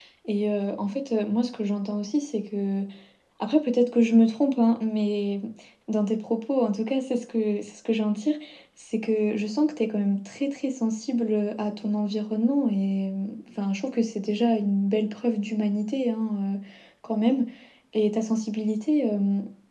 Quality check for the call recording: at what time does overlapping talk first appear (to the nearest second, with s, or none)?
none